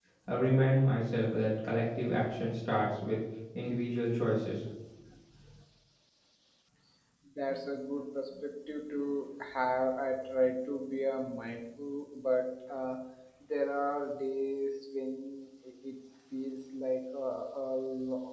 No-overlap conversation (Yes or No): Yes